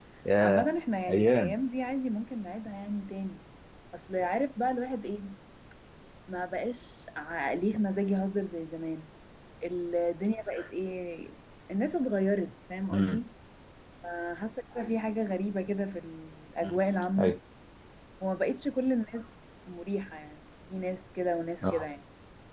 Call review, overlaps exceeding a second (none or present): none